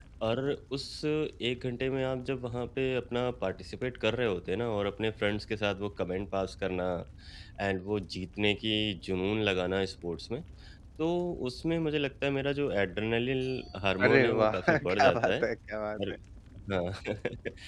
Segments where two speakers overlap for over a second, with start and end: 14.0-15.3

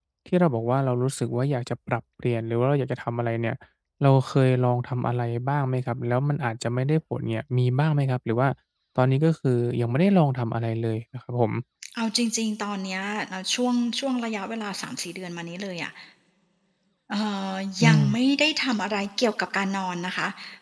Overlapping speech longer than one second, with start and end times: none

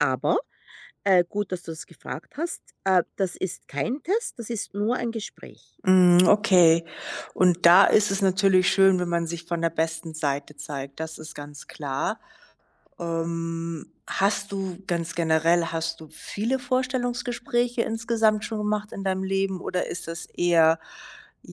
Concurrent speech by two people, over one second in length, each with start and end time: none

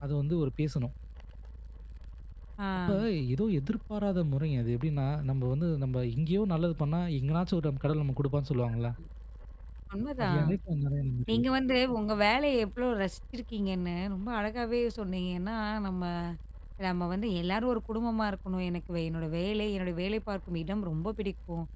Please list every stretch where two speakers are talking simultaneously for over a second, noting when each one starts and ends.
none

